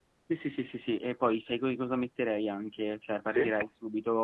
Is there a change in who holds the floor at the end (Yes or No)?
No